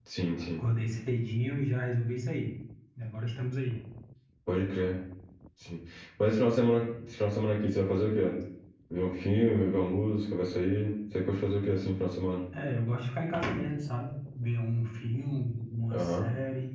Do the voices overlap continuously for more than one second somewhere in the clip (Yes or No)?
No